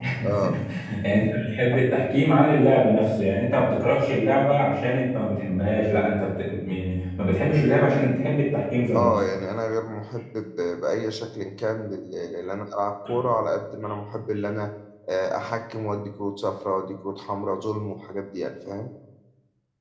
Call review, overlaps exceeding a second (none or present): none